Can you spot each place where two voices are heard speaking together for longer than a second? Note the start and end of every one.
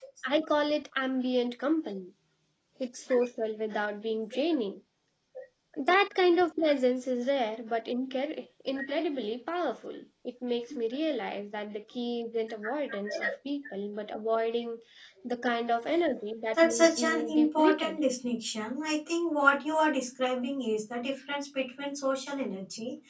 16.5-18.0

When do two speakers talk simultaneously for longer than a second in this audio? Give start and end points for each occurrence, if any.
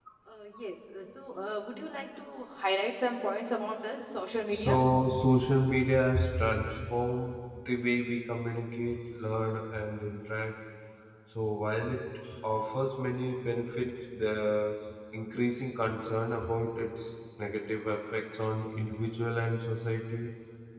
none

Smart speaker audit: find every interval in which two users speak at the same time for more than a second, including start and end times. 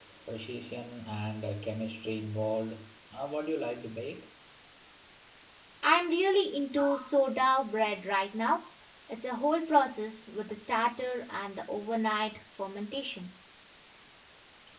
none

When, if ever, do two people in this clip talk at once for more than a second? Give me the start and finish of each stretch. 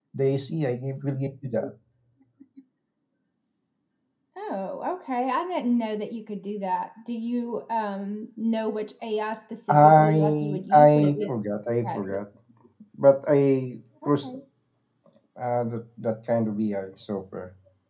9.7-11.3

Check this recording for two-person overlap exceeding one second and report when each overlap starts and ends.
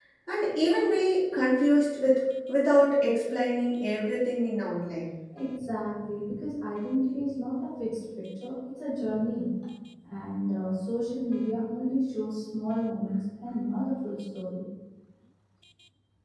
none

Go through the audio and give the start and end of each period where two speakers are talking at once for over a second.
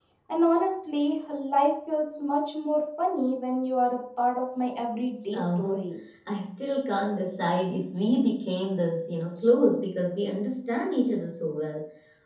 none

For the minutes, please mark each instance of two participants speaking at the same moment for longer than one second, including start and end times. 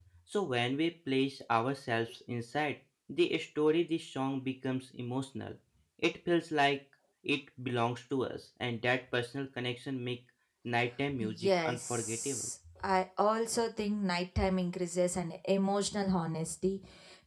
11.2-12.5

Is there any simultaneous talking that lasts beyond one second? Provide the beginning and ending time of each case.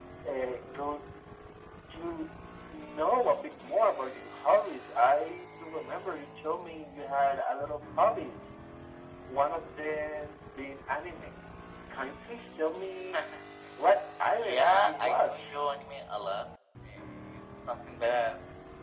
14.2-15.5

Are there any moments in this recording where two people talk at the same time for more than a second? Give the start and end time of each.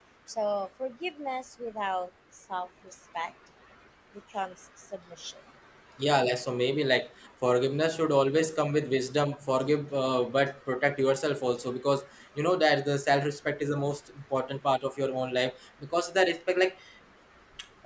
none

